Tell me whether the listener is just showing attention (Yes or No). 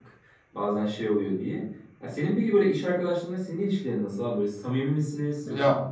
No